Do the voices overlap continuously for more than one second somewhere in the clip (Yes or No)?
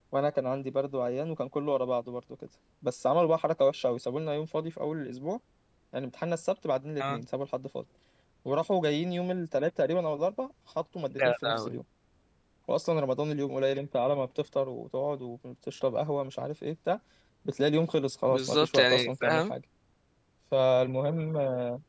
Yes